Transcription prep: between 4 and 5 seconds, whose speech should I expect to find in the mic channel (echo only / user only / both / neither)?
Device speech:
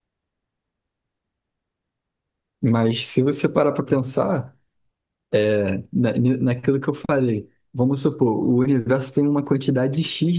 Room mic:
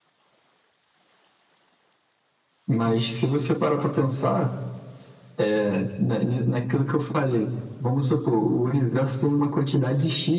echo only